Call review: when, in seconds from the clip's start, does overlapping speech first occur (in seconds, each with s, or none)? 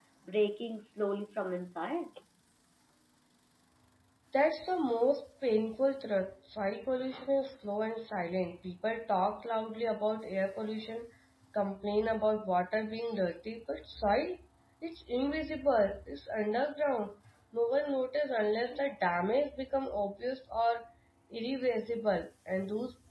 none